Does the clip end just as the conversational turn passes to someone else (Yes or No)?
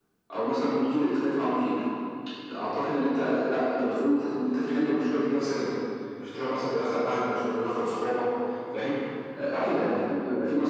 No